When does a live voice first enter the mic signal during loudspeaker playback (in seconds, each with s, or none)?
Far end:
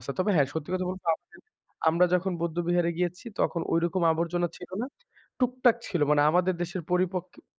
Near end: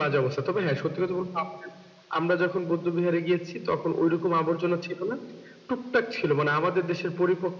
none